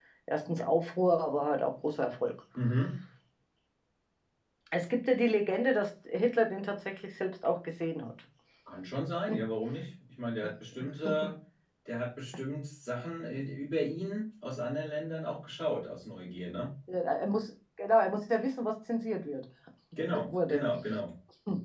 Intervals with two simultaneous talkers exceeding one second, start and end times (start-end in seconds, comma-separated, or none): none